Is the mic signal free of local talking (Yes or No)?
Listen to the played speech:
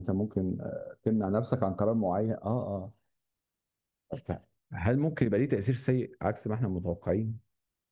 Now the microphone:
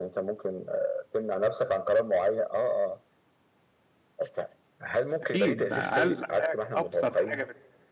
No